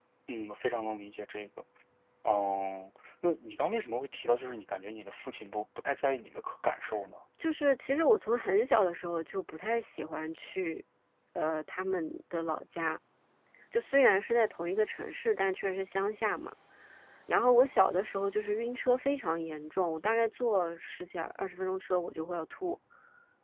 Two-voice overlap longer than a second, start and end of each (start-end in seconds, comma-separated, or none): none